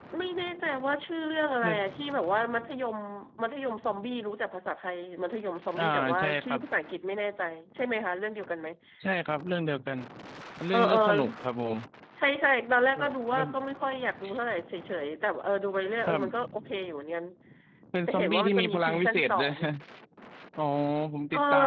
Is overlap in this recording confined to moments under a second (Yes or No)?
No